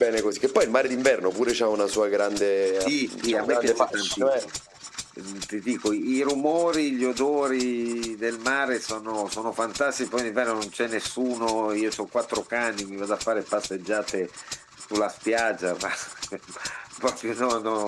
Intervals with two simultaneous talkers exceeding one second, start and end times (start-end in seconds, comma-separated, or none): 2.8-4.5